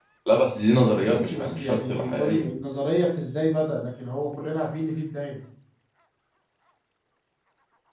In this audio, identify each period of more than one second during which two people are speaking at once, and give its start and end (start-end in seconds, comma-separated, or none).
1.0-2.5